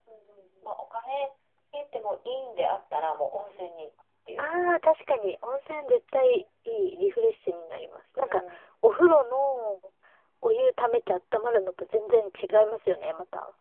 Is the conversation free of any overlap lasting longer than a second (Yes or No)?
Yes